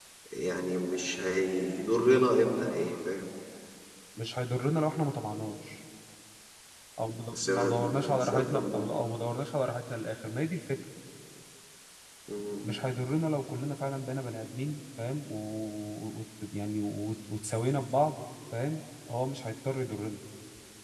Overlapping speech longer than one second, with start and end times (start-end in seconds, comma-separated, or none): 7.3-8.9